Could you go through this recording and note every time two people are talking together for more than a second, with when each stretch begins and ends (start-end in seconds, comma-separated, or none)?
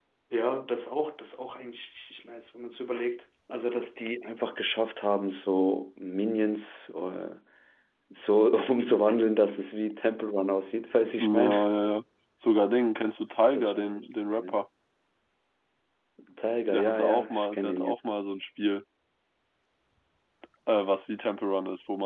16.7-17.9